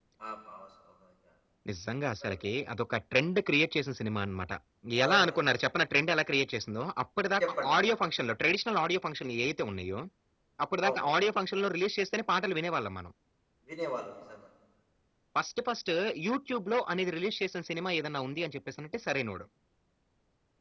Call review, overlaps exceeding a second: none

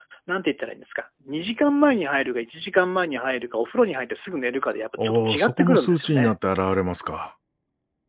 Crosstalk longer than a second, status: present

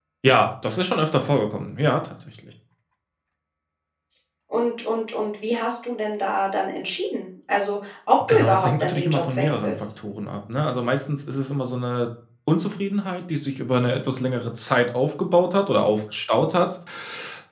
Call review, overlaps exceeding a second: present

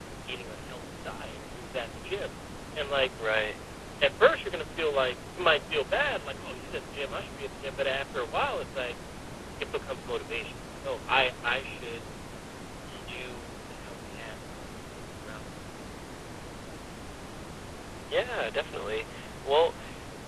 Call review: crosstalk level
none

